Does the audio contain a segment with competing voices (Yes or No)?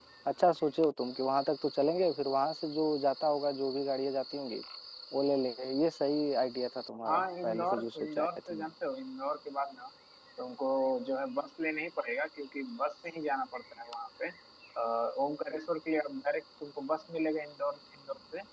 Yes